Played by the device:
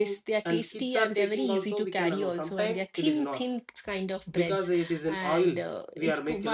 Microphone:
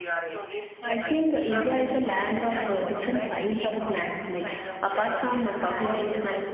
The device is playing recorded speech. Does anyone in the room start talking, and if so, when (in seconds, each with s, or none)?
0.6 s